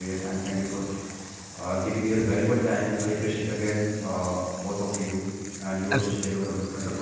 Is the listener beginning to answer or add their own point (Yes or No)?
No